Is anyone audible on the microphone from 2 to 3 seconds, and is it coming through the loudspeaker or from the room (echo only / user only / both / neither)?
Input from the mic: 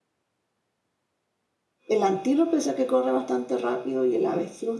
user only